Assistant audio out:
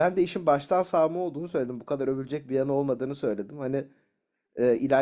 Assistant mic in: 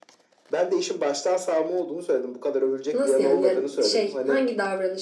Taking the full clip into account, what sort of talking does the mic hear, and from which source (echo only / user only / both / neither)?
both